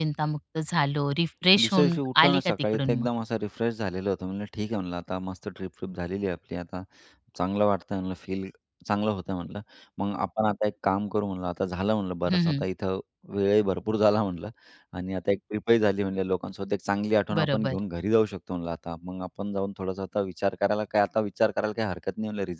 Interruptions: present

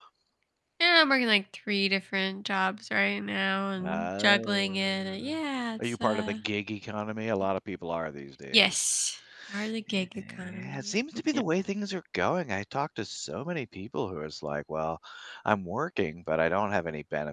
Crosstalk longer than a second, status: present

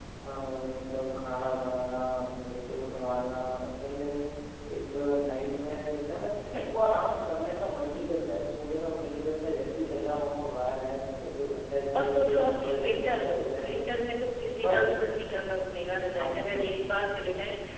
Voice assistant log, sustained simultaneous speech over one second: present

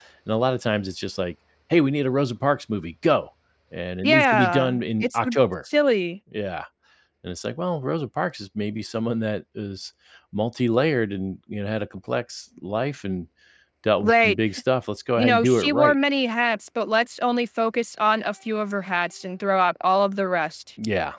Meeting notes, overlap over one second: present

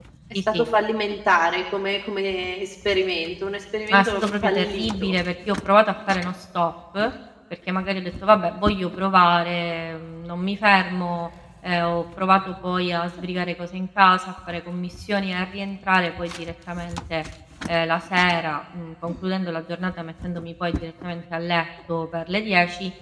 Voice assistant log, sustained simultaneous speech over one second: present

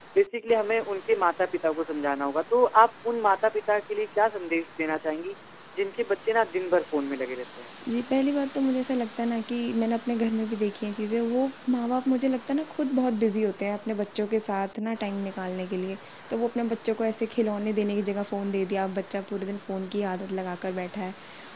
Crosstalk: none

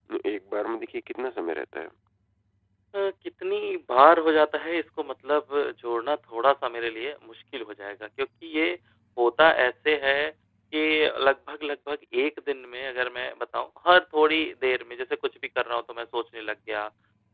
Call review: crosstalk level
none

